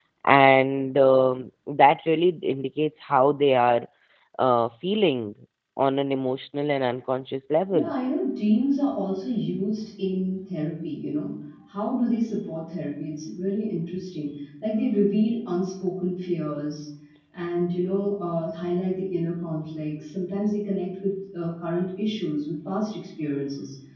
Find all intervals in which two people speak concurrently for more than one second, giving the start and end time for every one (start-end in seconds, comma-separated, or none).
none